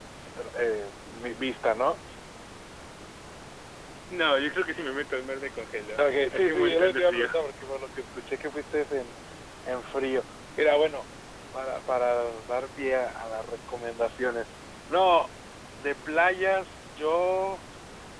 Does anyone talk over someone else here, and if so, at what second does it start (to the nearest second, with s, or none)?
6 s